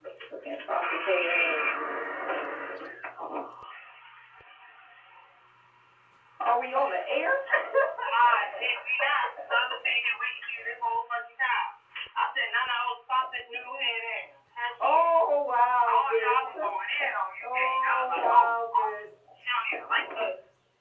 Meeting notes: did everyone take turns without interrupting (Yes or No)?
No